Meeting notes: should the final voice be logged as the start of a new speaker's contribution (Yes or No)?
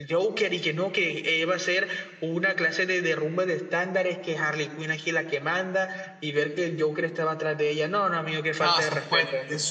Yes